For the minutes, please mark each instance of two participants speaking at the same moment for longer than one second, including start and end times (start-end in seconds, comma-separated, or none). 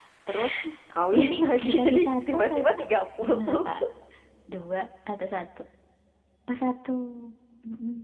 1.1-2.6